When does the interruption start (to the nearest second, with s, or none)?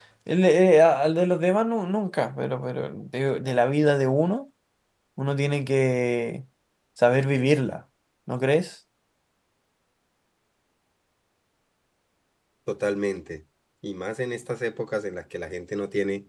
none